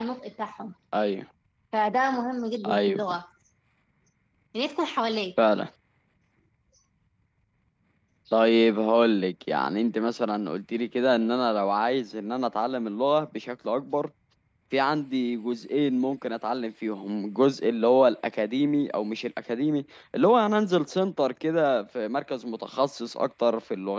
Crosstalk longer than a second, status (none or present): none